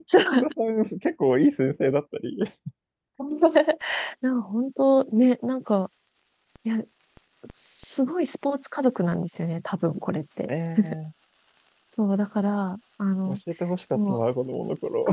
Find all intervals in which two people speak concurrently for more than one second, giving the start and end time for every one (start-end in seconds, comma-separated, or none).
none